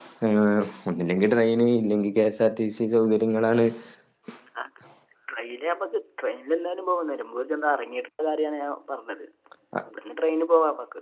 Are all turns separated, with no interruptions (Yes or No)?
Yes